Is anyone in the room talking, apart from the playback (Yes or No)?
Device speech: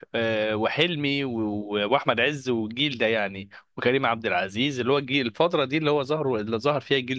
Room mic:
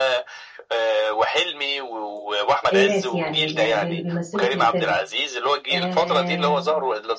Yes